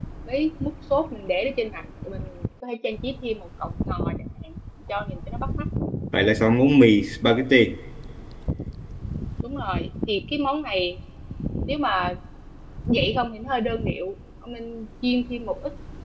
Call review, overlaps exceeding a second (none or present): none